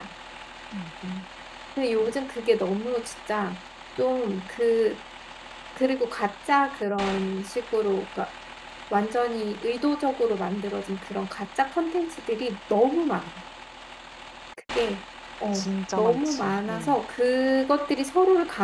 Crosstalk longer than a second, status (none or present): present